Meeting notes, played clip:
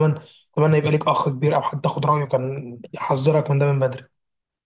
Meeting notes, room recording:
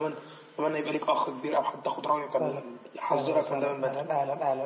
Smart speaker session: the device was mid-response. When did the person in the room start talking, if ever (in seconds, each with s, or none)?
2.4 s